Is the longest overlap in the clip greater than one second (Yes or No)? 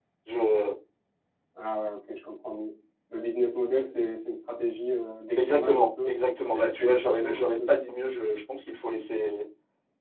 Yes